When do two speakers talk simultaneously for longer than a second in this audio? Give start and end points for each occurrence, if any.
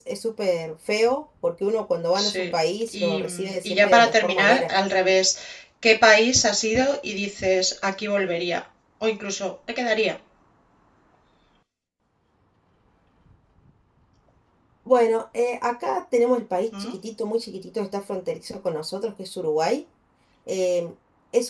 2.9-4.7

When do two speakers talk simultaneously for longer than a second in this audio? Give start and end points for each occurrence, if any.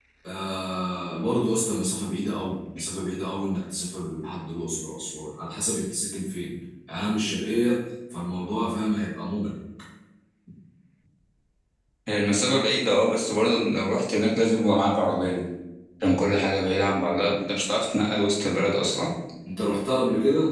none

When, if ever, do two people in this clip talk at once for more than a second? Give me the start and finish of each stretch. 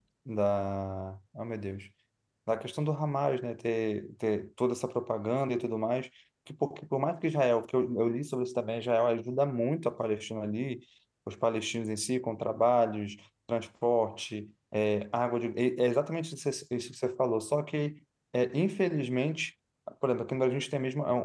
none

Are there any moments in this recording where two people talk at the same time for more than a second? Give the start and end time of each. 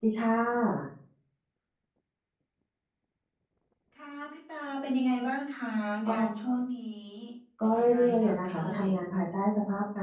7.6-8.9

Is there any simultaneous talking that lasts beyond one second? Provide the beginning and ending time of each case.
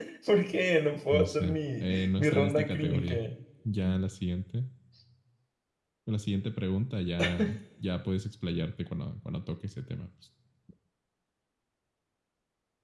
1.1-3.2

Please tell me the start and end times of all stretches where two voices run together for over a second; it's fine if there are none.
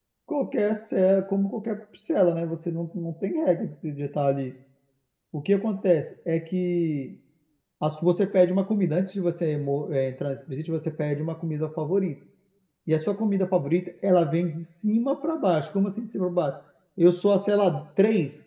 none

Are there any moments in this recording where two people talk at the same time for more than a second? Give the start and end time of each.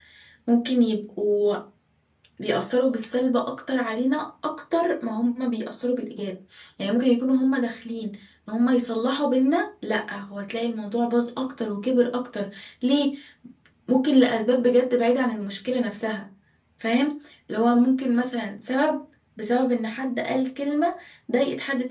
none

